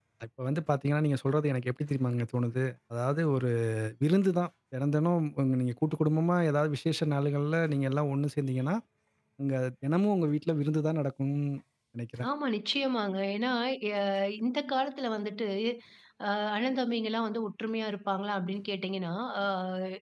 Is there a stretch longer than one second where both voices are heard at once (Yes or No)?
No